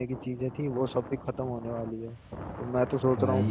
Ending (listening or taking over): listening